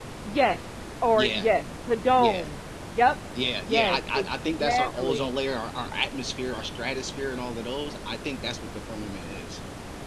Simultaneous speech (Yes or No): Yes